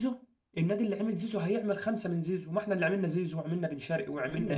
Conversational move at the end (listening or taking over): taking over